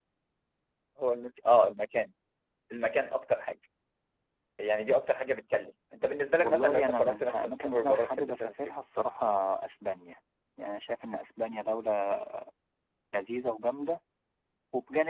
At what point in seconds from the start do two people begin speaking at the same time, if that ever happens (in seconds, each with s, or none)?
6.4 s